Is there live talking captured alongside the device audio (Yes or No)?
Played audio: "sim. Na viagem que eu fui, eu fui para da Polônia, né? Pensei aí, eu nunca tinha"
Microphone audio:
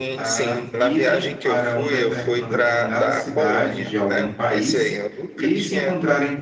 Yes